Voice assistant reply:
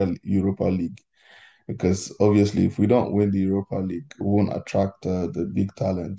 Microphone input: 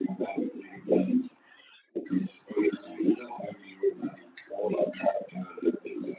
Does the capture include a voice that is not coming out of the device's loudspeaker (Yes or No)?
No